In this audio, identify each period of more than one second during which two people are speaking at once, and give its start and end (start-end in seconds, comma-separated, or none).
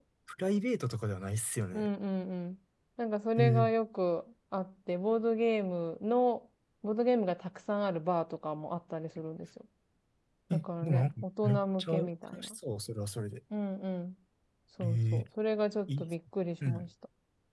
10.5-12.6